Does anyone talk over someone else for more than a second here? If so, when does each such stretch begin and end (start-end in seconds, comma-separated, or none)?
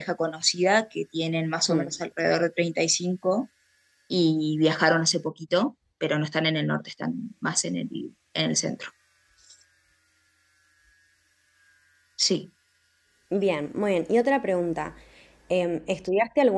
none